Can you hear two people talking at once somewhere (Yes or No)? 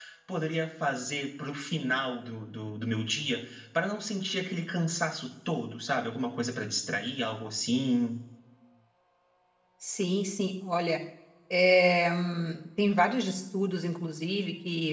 No